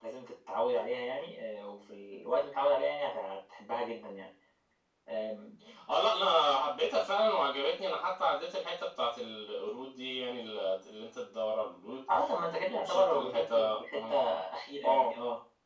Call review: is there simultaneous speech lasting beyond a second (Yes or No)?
Yes